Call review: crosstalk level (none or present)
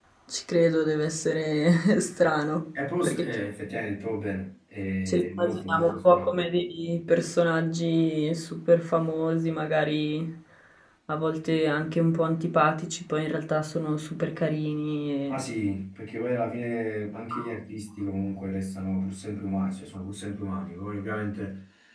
present